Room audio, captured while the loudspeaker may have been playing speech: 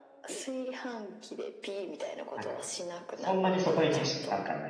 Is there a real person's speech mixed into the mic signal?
Yes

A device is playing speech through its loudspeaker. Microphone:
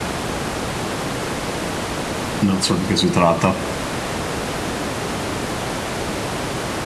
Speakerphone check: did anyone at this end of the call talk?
Yes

